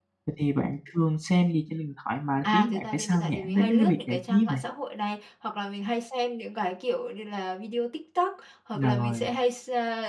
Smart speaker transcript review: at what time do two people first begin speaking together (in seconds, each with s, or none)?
2.4 s